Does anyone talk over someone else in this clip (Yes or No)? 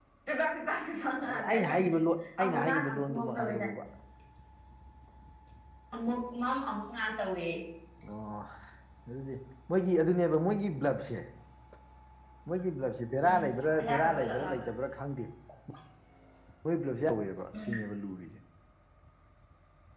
Yes